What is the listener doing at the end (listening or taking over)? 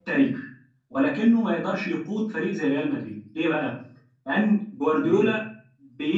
listening